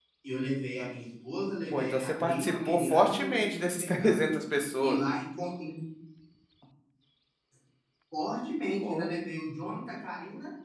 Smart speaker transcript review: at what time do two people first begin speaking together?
2 s

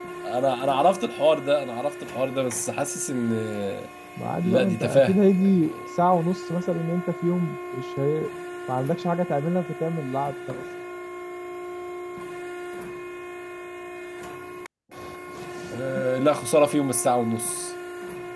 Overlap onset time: 4 s

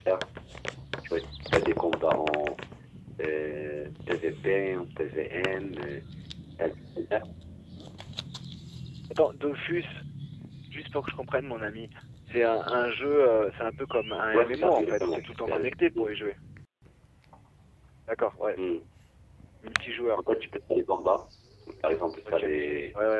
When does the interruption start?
14 s

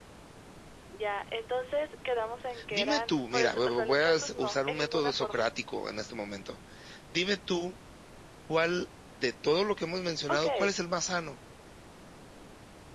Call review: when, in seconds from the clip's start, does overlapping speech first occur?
3 s

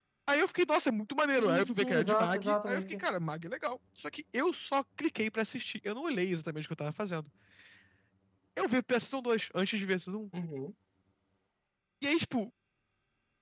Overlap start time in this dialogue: 1 s

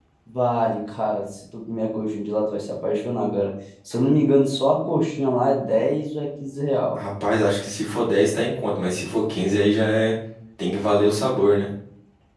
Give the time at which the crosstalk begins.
none

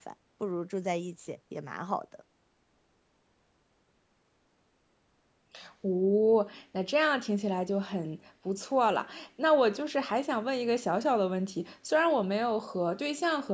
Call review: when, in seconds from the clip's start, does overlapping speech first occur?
none

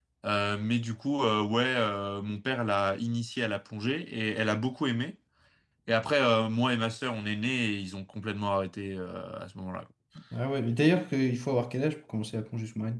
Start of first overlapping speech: none

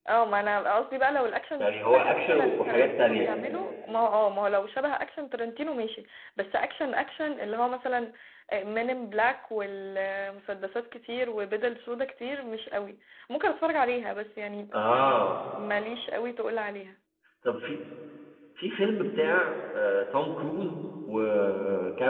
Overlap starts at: 2 s

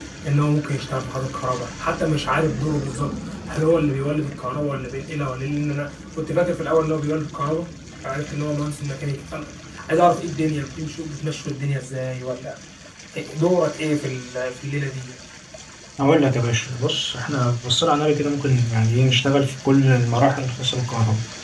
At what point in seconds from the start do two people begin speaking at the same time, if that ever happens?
none

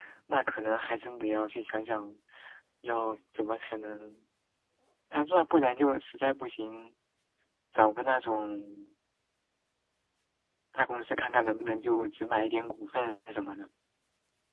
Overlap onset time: none

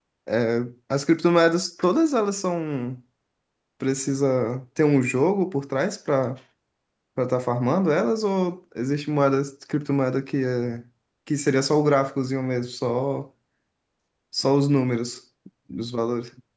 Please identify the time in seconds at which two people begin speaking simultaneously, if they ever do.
none

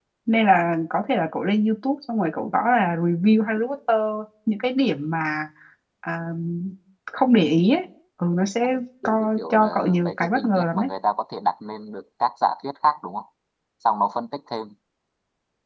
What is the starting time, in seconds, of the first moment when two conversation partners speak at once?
9 s

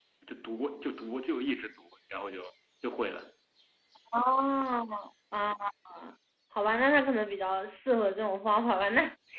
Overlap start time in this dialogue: none

